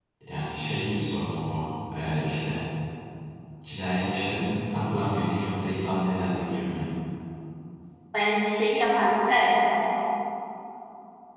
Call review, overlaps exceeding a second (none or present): none